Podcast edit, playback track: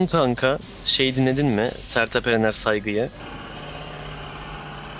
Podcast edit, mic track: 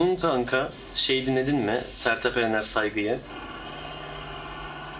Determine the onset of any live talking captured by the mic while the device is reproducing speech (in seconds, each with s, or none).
none